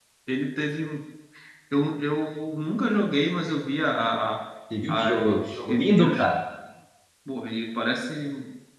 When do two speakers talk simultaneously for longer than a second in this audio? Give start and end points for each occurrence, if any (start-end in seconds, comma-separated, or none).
4.9-6.2